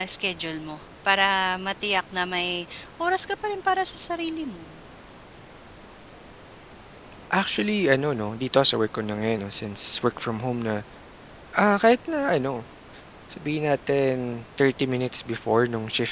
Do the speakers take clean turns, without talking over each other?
Yes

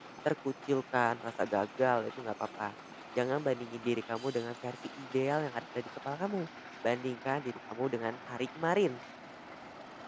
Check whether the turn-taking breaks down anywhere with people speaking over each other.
No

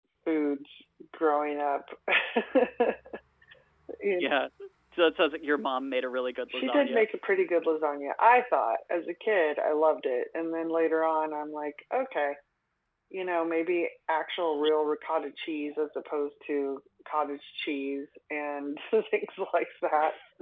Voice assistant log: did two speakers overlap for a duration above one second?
No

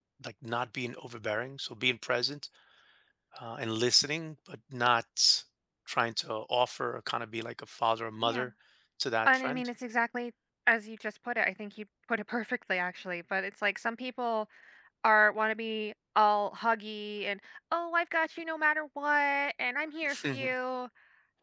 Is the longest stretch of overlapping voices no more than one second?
Yes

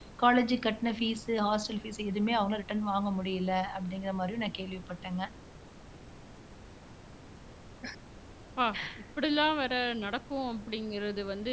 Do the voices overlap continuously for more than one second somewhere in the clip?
No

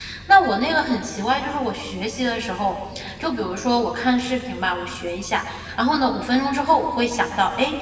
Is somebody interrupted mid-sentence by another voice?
No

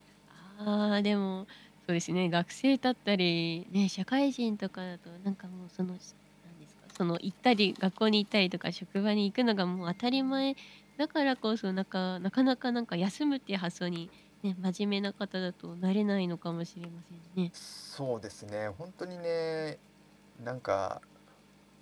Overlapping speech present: No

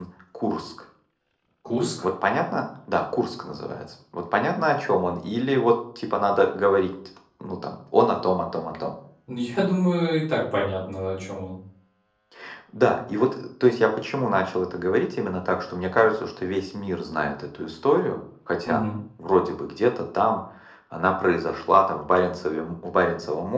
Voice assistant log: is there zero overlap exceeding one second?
Yes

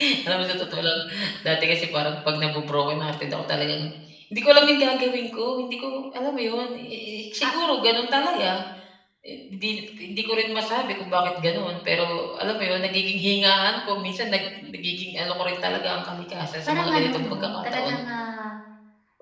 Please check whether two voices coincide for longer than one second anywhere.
Yes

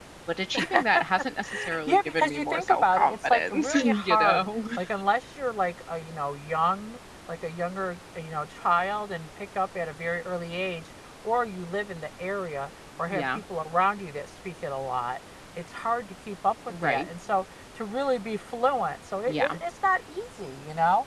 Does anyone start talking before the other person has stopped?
Yes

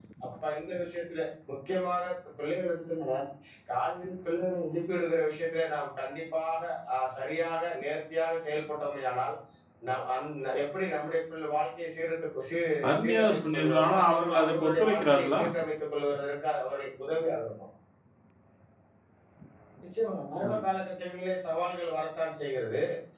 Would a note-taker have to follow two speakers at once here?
Yes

